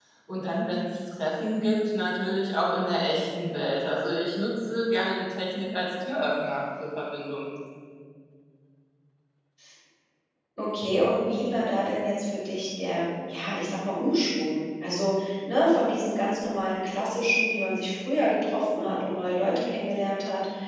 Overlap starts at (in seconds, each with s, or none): none